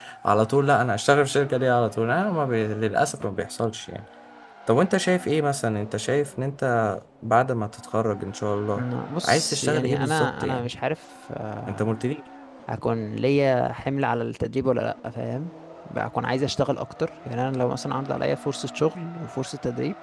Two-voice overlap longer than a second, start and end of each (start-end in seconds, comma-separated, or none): 9.2-10.7